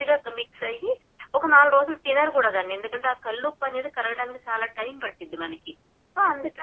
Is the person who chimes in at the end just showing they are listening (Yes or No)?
No